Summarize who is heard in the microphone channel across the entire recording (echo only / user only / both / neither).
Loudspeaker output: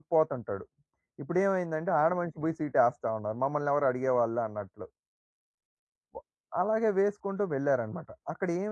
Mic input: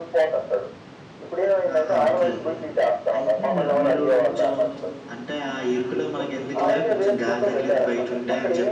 both